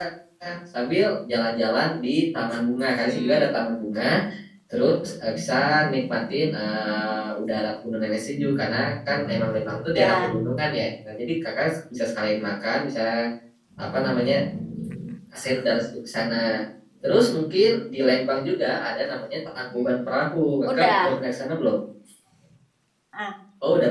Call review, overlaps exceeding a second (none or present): none